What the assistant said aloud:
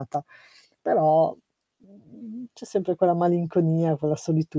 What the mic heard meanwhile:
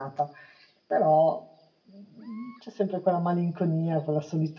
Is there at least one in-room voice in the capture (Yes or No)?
No